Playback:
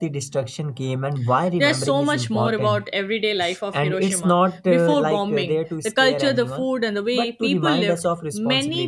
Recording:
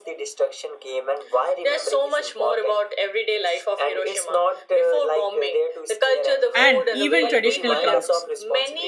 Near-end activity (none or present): present